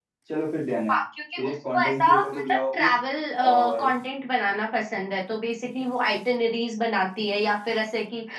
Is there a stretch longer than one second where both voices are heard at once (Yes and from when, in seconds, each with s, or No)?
Yes, from 1.4 s